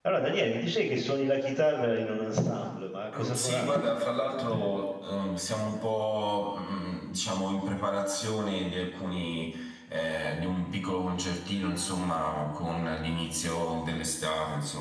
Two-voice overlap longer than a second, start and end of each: 3.1-4.7

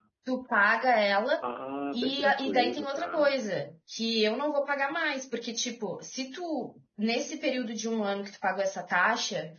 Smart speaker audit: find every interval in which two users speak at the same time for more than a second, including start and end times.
1.9-3.3

